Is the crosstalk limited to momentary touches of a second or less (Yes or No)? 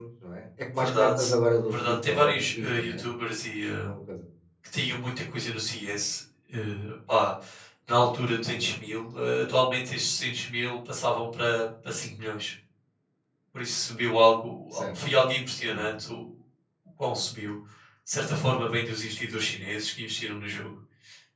No